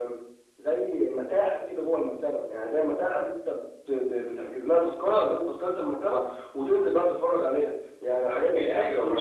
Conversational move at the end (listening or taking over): taking over